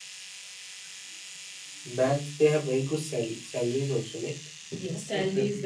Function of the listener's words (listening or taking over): taking over